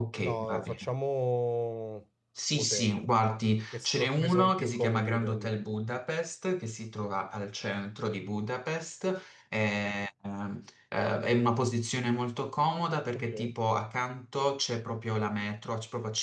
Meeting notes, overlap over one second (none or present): present